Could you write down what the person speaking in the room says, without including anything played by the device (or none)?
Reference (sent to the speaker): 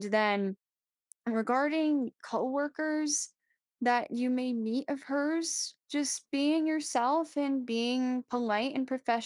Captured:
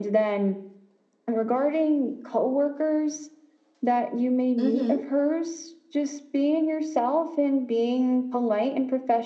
Mhm.